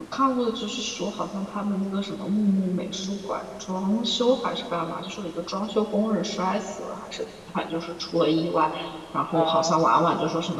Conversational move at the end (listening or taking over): listening